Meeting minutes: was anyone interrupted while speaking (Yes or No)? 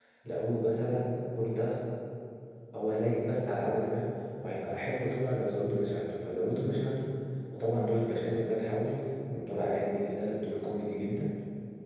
No